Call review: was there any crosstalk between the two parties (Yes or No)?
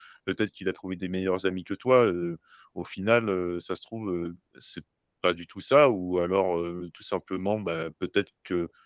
No